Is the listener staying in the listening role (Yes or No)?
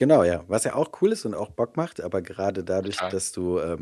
Yes